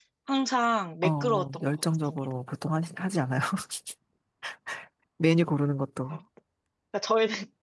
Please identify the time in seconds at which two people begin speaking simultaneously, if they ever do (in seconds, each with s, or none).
1.0 s